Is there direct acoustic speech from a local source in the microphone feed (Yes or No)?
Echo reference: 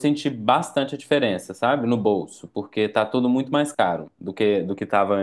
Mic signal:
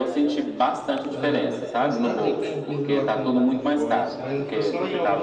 Yes